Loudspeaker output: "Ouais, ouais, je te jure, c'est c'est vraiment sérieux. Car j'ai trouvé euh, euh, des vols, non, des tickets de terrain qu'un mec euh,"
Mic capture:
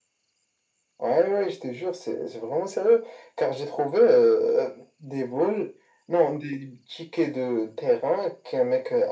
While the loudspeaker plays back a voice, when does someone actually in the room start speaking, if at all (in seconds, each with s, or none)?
none